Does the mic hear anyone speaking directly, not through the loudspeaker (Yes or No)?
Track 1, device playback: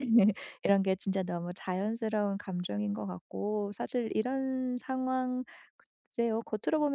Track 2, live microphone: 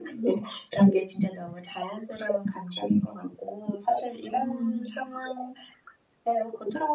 Yes